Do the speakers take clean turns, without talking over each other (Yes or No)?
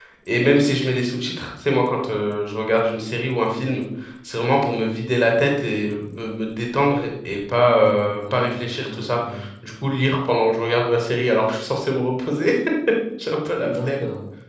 No